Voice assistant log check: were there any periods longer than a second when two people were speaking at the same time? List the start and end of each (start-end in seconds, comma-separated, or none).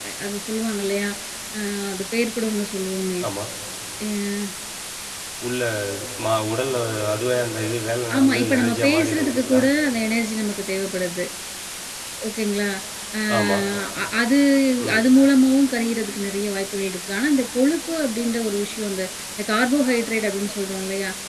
8.2-9.6